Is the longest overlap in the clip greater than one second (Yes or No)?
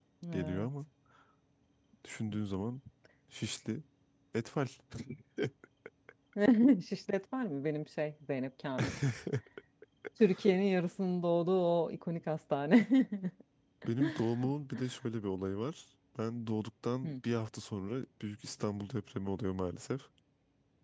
No